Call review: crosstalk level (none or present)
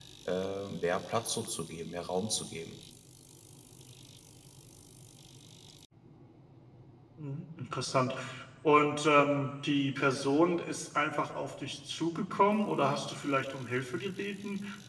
none